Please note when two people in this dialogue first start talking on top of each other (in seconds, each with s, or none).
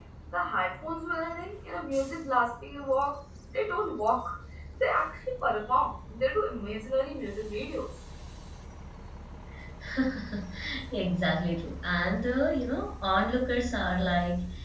none